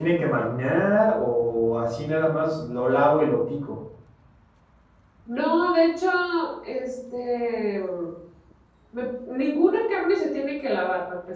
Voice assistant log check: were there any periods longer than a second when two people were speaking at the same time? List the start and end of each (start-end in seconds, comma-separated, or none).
none